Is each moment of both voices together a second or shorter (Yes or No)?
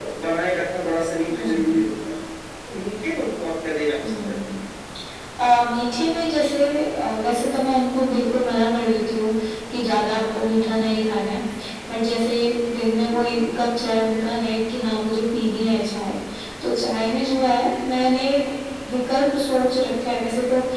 Yes